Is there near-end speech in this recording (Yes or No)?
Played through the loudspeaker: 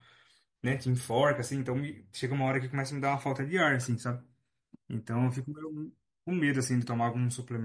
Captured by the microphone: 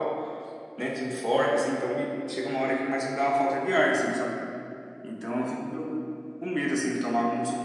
No